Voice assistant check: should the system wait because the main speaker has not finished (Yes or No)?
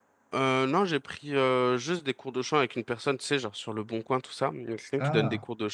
Yes